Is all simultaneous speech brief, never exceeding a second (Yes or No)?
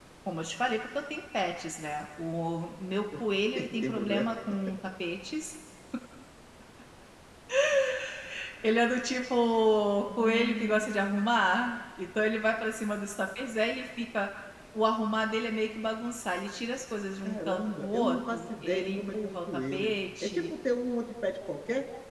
No